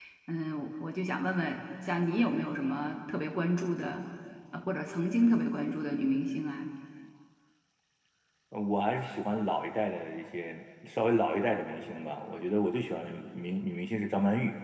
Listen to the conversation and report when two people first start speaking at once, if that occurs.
none

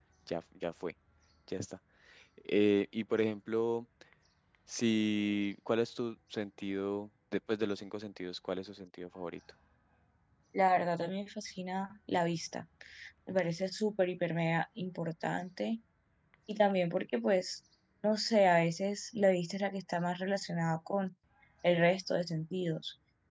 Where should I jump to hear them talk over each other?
none

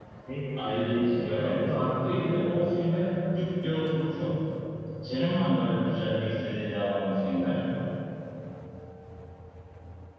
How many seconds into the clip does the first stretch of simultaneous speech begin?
0.6 s

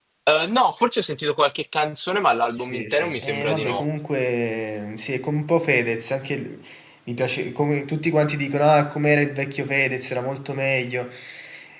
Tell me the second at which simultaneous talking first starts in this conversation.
2.4 s

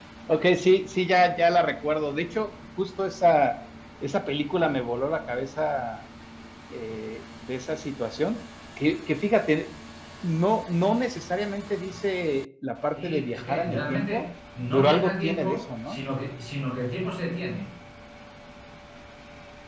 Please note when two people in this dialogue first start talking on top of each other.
13.0 s

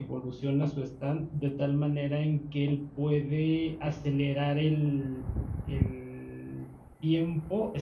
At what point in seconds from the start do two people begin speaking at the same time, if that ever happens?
none

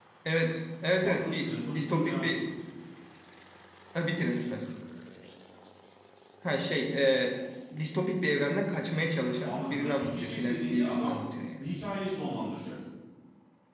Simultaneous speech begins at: 1.0 s

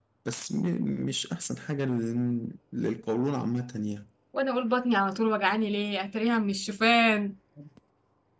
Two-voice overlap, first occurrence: none

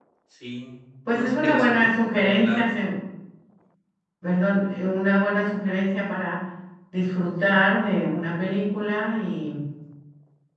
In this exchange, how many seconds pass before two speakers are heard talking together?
1.1 s

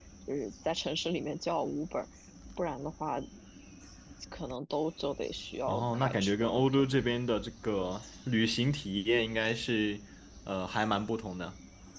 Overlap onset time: 5.7 s

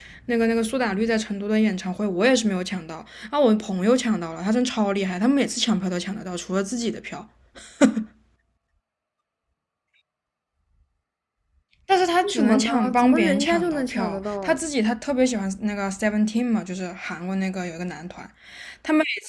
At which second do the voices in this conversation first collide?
12.2 s

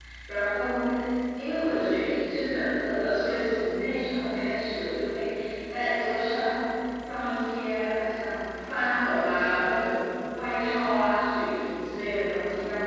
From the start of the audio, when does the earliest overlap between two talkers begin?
none

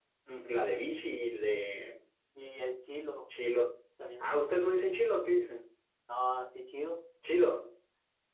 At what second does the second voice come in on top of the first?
none

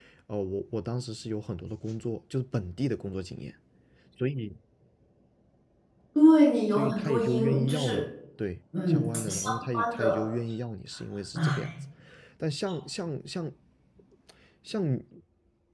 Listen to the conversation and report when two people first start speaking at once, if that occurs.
6.7 s

